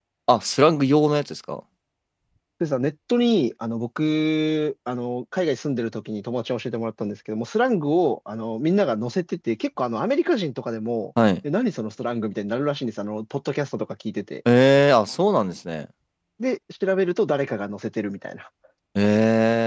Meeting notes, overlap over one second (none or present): none